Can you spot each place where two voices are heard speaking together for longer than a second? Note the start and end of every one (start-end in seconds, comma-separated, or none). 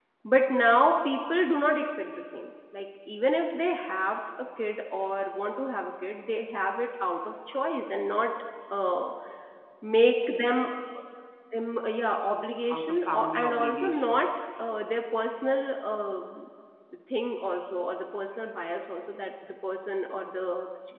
12.7-14.3